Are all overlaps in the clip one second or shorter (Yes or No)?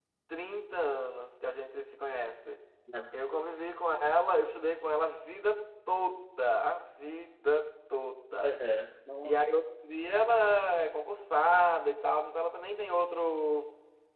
Yes